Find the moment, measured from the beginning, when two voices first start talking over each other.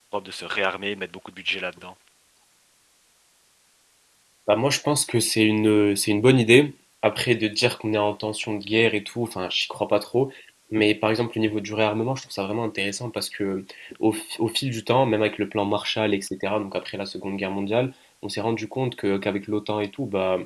none

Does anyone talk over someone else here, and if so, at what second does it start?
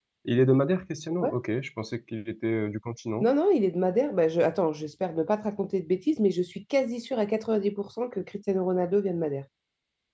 none

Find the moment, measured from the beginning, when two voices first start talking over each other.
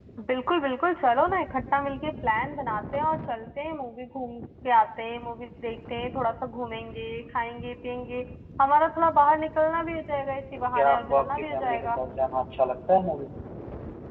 10.8 s

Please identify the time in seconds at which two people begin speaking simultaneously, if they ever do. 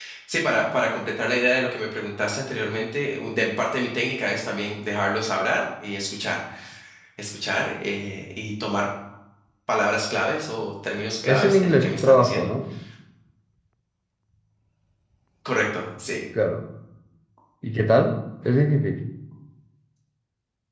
11.2 s

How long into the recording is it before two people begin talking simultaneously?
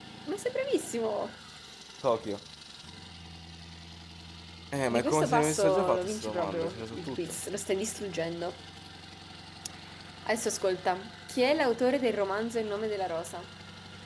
4.9 s

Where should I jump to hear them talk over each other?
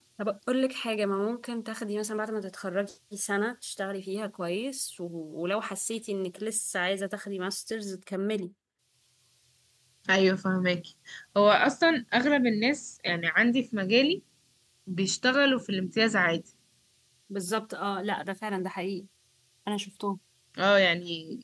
none

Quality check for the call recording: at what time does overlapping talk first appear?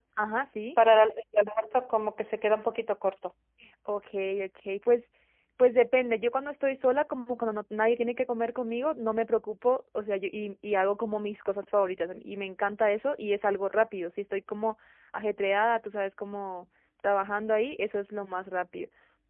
none

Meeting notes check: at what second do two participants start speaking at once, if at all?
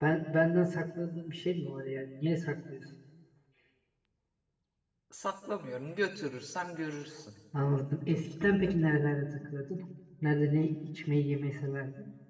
none

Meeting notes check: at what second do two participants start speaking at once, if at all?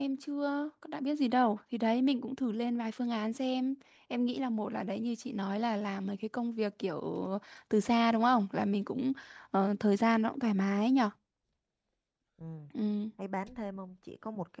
none

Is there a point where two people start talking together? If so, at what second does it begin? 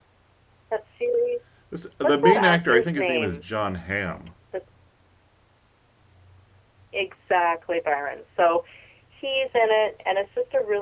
2.0 s

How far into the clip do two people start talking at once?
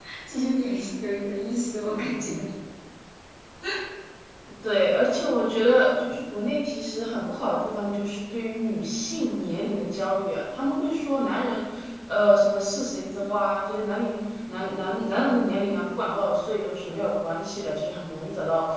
none

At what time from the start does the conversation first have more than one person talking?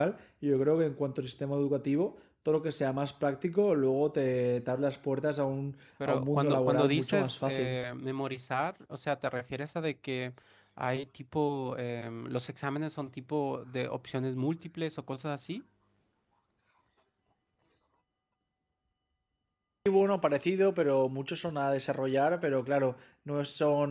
6.0 s

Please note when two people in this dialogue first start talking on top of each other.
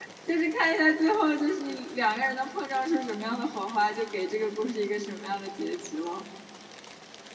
none

